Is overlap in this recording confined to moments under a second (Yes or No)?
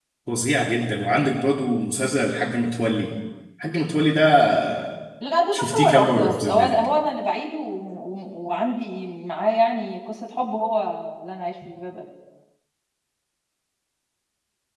No